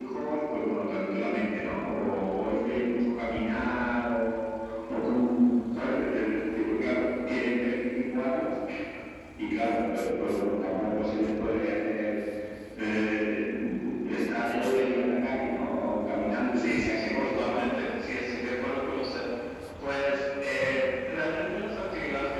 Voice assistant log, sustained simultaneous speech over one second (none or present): present